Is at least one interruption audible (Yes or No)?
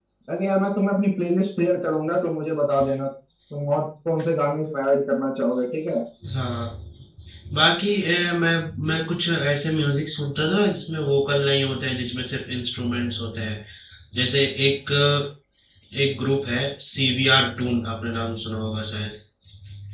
No